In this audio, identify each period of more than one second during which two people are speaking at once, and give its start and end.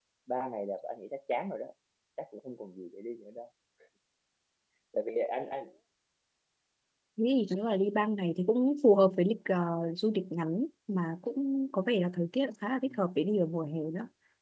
none

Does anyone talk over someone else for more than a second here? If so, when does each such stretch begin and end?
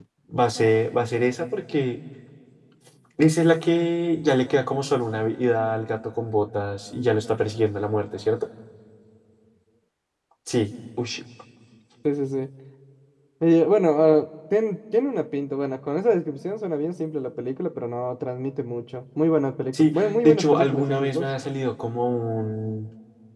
19.7-21.3

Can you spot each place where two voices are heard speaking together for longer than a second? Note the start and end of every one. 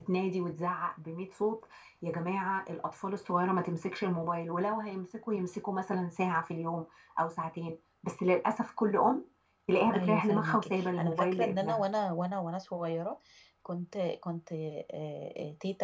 9.9-11.8

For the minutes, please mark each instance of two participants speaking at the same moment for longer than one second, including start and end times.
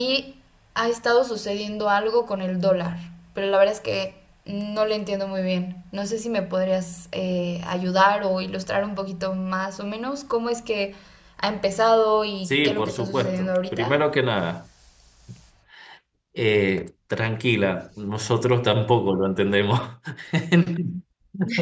12.4-14.0

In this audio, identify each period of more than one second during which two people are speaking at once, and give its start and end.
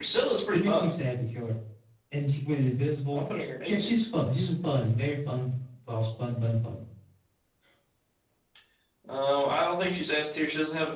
none

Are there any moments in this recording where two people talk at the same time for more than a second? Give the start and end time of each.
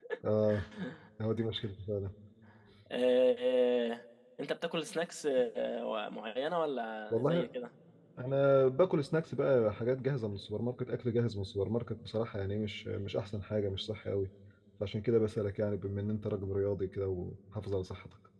none

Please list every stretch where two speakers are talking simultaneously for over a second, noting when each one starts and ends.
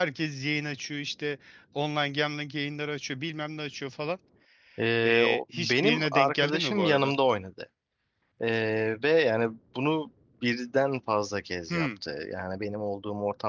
5.0-7.1

